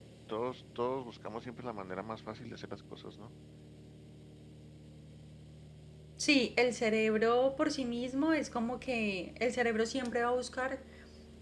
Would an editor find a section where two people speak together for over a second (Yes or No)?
No